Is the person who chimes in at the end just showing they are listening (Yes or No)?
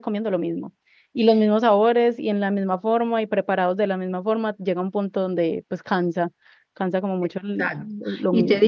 No